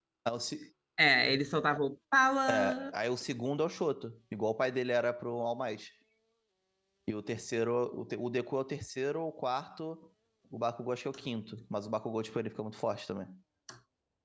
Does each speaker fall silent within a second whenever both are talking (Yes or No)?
Yes